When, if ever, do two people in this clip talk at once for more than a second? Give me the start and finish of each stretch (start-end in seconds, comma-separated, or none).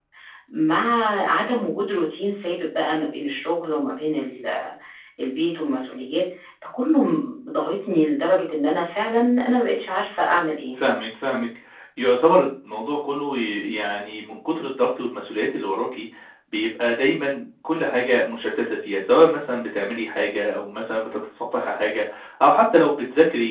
none